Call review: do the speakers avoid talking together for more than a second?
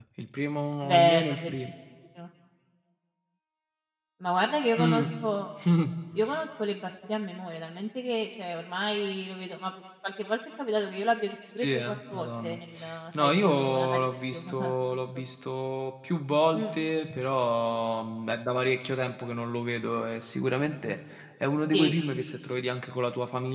No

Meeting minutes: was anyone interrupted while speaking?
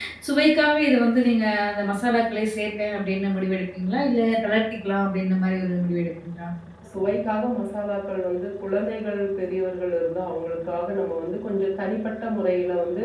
No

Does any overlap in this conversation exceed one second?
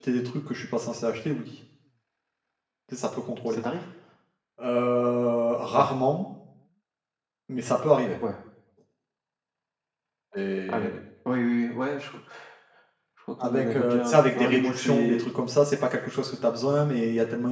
Yes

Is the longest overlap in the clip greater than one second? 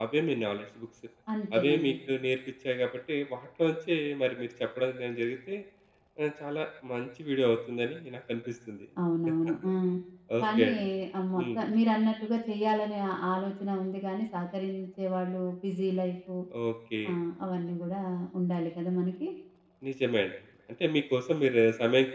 No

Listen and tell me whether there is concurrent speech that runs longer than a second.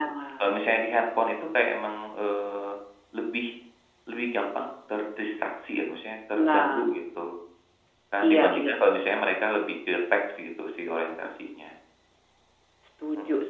No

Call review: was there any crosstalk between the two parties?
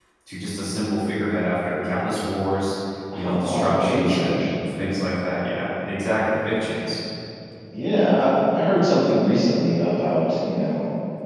Yes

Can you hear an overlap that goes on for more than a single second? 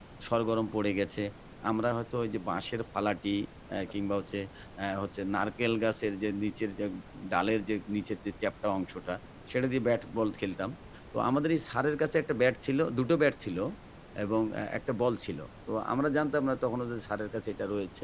No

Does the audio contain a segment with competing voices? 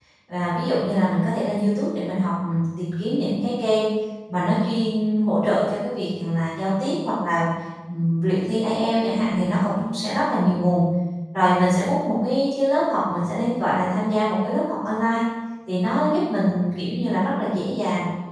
No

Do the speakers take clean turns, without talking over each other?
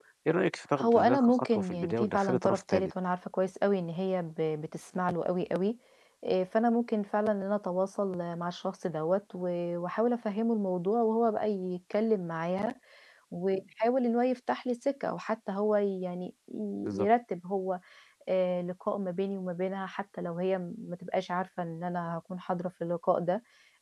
No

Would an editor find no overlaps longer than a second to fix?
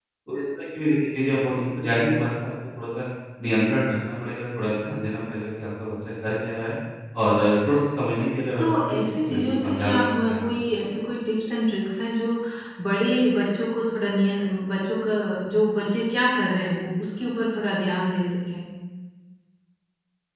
No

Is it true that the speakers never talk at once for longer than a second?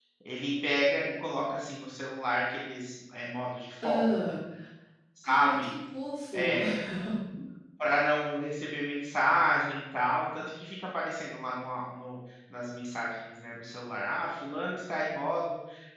Yes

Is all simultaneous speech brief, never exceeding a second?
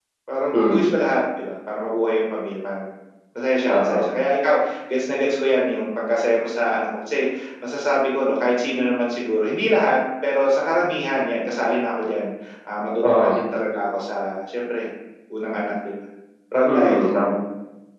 Yes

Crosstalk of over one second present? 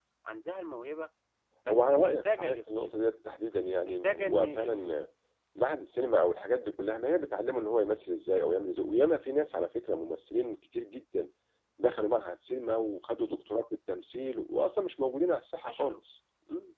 Yes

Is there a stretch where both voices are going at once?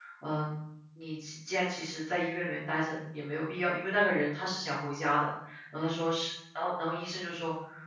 No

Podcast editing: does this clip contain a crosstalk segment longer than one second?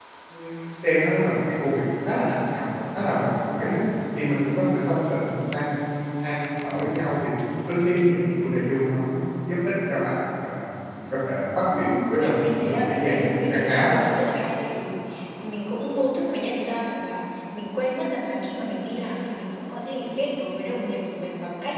Yes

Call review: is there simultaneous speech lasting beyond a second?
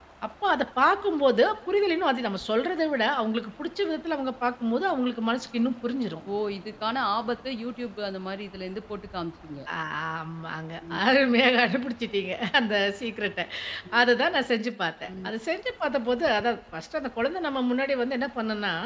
No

